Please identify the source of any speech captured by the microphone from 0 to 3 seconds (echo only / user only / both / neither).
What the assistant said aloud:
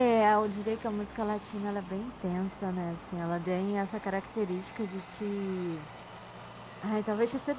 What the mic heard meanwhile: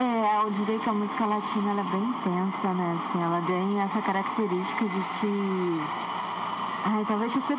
echo only